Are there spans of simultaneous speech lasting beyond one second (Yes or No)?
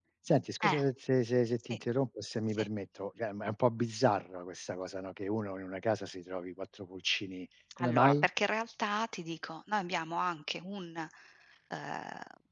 No